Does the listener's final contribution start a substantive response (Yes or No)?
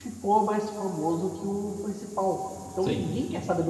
No